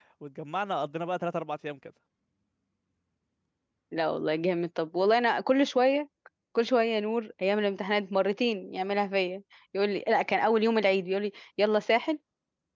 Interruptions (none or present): none